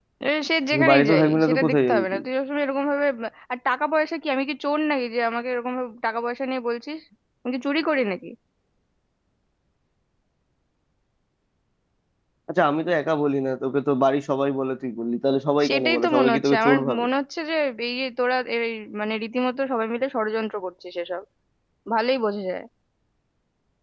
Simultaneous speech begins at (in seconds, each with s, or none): 0.7 s